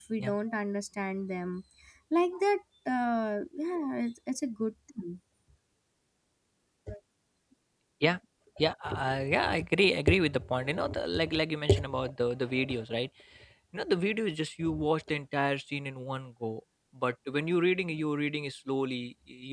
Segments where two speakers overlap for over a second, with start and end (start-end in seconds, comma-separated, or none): none